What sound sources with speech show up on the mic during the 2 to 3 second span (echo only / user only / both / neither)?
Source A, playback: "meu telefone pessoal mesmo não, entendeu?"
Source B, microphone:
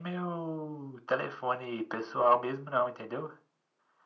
echo only